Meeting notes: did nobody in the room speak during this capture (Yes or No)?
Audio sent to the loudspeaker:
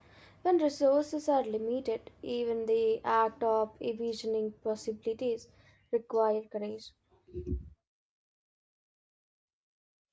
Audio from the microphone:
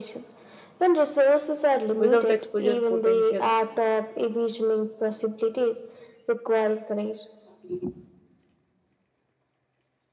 No